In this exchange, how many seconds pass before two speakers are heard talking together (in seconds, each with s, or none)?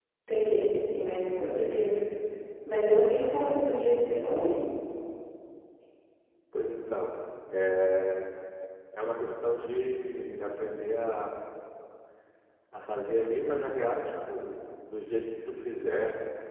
none